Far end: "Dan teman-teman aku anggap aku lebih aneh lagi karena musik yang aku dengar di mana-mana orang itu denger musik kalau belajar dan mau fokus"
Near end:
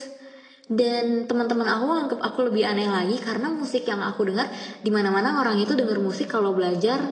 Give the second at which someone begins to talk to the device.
none

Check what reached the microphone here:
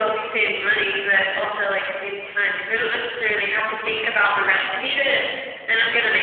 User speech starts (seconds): none

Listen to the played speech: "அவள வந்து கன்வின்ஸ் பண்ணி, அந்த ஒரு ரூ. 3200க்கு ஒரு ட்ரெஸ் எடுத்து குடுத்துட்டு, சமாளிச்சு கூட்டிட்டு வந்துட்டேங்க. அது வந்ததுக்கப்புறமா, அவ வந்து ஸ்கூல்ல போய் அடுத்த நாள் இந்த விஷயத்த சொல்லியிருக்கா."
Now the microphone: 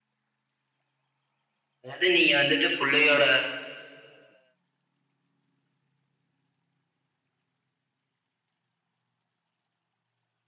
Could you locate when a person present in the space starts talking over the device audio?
1.8 s

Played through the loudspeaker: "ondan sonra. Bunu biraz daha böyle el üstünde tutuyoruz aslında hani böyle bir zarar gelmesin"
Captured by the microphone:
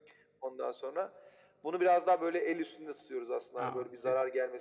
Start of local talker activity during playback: 3.6 s

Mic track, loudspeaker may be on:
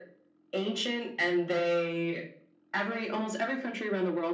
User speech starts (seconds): none

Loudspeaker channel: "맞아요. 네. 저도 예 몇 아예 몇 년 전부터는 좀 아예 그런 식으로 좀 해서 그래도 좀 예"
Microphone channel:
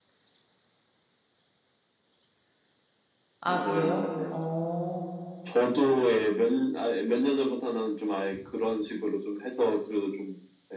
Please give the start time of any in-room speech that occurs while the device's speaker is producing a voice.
3.4 s

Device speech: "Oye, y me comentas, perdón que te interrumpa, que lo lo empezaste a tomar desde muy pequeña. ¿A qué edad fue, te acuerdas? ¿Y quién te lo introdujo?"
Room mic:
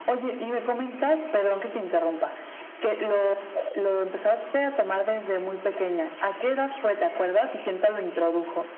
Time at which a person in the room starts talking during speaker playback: none

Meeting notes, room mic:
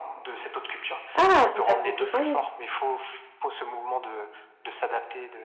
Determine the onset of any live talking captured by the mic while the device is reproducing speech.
1.1 s

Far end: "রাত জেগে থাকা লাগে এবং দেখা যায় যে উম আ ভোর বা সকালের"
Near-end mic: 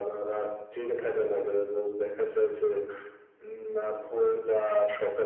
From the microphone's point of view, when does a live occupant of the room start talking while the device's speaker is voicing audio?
none

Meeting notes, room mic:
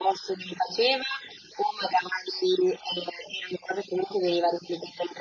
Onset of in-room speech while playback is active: none

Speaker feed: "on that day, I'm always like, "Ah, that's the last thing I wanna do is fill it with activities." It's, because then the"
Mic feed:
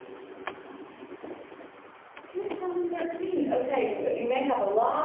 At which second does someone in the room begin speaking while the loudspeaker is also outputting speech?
2.2 s

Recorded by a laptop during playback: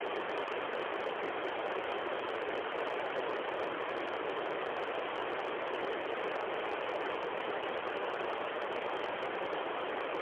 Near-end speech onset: none

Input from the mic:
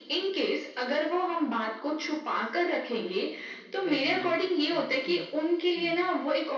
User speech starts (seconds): 3.9 s

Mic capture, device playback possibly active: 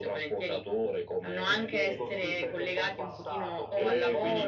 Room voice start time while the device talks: 1.4 s

